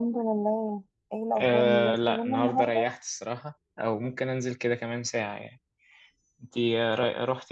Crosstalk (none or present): present